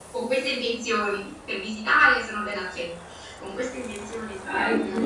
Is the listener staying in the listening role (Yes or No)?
No